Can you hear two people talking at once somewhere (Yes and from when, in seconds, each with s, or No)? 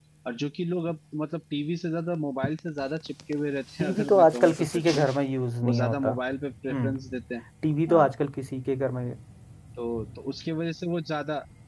Yes, from 3.8 s